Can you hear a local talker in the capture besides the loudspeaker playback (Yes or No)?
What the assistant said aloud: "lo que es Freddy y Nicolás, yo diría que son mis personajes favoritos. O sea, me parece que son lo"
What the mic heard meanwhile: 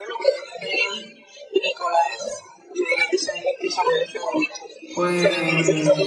Yes